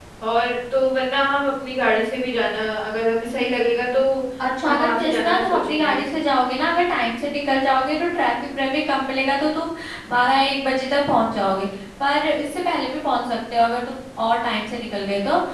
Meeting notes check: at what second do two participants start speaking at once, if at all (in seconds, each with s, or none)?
4.6 s